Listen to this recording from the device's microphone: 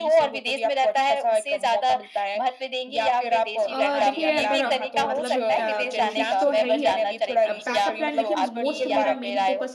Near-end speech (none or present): present